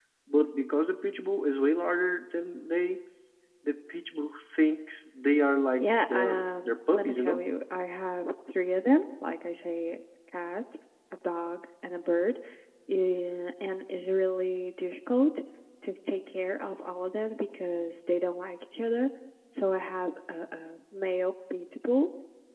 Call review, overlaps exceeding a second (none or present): present